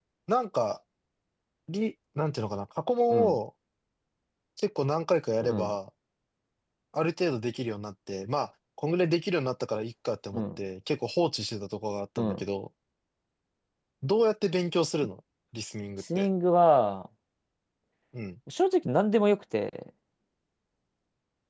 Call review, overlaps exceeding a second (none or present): none